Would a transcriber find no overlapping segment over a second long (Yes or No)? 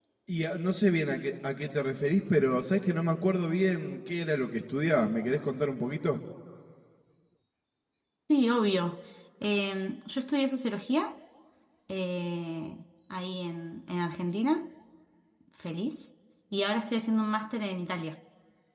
Yes